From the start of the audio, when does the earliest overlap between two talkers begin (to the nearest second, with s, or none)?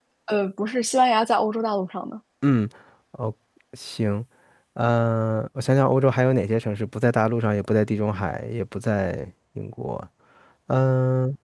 none